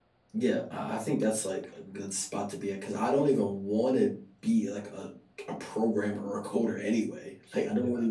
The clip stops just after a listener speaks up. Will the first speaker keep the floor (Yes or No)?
Yes